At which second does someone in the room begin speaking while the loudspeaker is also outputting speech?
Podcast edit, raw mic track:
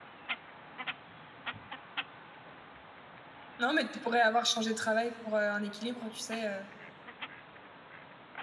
3.6 s

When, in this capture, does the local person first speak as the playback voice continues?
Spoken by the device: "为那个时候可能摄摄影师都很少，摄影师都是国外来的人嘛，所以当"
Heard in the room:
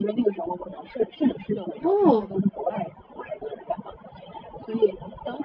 1.8 s

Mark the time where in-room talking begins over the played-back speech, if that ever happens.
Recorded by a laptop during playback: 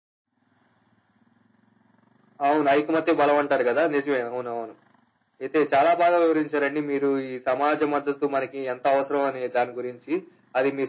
none

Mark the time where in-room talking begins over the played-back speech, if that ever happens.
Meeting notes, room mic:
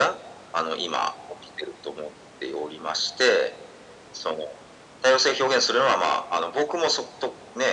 none

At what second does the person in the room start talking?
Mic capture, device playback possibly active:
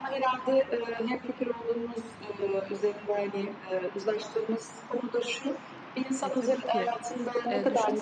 6.2 s

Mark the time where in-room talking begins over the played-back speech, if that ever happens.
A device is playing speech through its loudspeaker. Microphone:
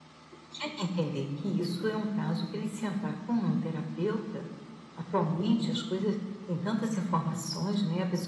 none

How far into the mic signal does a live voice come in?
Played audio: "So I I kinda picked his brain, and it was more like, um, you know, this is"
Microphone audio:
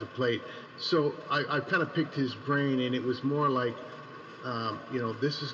none

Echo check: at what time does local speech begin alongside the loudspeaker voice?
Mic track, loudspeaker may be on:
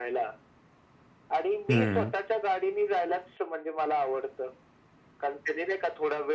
1.7 s

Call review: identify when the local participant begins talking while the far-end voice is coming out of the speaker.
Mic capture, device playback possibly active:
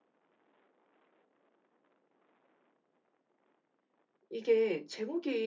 4.3 s

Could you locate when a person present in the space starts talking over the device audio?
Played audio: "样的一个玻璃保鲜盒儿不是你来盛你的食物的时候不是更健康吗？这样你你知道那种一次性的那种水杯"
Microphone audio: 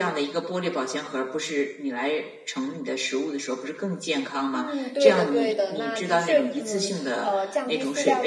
4.5 s

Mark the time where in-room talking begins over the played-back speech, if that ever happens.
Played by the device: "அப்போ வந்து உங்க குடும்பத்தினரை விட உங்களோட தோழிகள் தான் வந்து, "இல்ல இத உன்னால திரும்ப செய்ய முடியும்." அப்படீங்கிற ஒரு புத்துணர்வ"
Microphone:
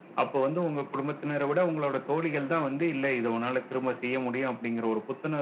none

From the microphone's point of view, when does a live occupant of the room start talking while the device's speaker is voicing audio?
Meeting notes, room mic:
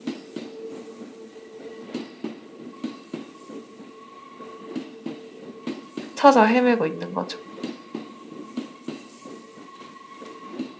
6.1 s

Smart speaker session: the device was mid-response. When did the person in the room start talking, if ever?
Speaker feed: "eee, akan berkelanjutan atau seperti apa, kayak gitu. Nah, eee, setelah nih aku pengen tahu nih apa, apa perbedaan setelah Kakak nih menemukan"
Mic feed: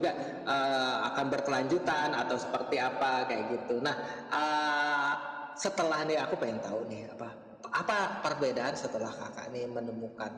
none

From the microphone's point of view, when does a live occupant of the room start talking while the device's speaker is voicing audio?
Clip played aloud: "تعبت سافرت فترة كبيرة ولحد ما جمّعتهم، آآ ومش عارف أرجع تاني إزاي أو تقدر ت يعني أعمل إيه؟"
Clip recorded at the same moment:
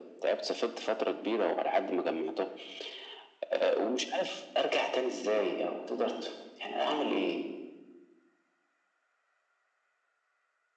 none

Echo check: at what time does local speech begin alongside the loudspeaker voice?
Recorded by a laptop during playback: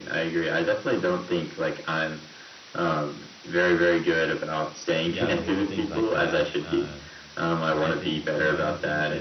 5.1 s

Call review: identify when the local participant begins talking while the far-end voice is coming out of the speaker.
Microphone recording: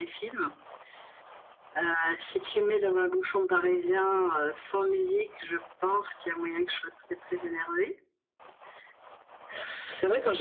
none

